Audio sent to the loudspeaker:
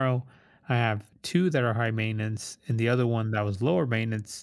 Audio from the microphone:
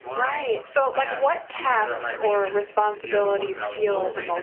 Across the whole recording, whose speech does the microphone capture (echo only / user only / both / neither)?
both